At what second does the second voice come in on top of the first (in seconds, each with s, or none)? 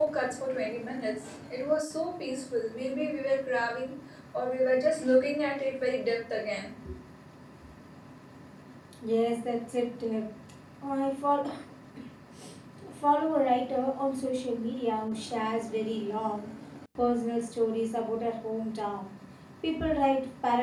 none